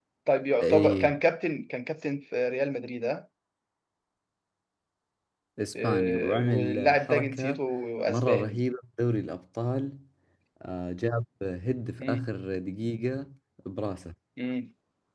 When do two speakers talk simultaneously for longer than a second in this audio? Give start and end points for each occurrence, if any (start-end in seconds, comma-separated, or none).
5.8-7.6